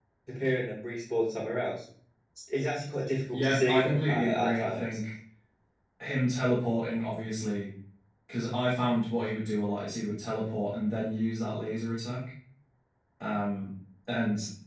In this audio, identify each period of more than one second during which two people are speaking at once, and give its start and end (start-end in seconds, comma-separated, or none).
3.3-5.0